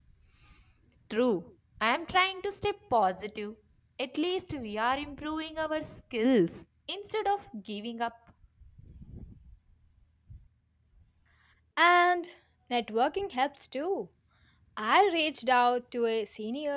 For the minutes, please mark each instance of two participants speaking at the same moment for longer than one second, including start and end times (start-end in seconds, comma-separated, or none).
none